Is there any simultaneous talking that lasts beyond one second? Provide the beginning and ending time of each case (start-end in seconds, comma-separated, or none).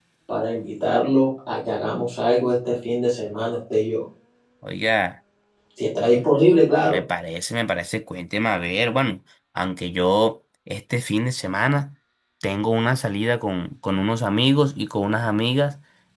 none